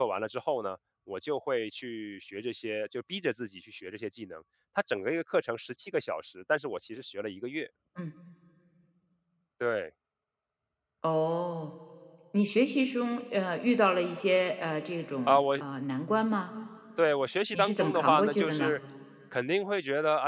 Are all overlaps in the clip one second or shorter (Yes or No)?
No